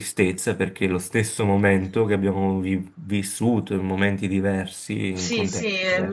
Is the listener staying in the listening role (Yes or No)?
No